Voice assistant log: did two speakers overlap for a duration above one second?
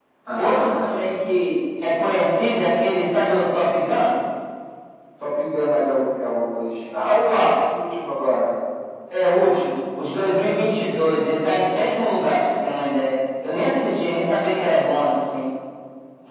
No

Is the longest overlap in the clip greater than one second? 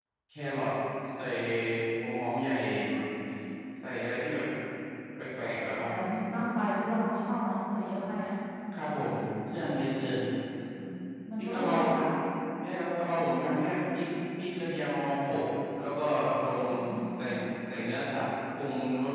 No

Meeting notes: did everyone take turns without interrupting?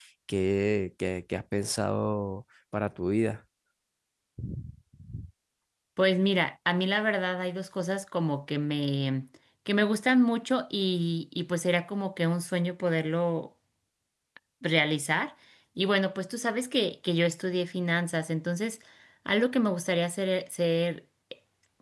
Yes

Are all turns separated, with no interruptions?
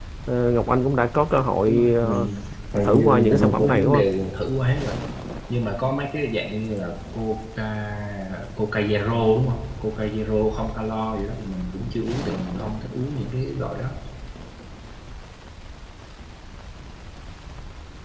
No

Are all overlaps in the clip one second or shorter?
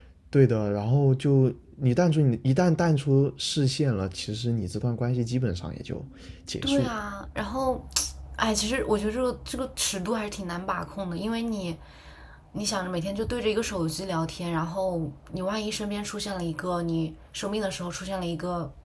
Yes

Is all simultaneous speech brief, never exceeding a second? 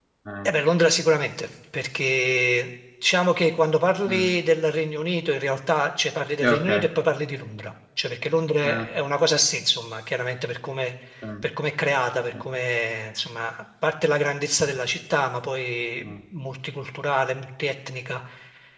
Yes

